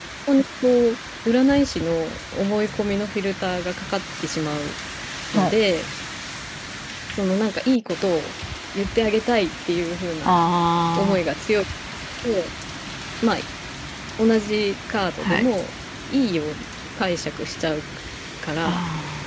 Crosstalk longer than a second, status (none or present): none